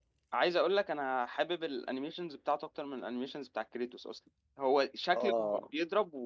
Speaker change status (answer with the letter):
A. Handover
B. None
B